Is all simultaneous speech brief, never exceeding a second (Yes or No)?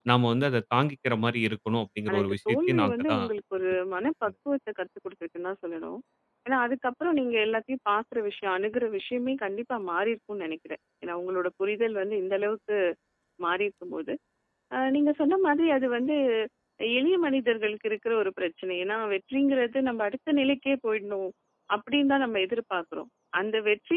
No